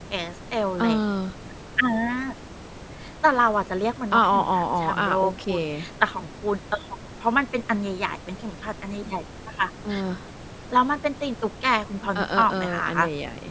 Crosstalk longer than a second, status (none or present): present